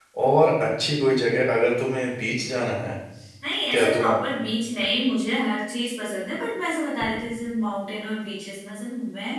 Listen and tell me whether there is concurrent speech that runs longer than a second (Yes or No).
No